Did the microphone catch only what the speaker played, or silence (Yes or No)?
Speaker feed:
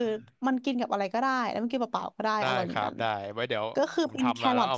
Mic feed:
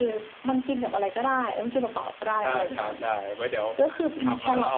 Yes